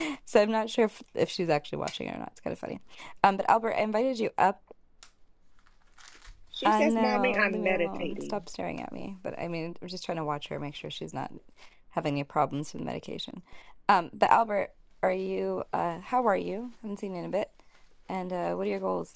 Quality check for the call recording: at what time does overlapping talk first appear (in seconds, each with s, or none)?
6.6 s